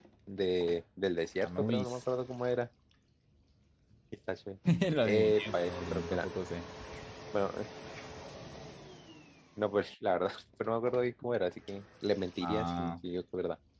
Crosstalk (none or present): present